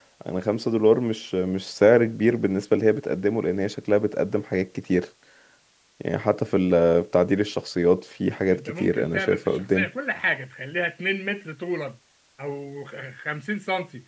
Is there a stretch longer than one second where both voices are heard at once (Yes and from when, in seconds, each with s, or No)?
Yes, from 8.5 s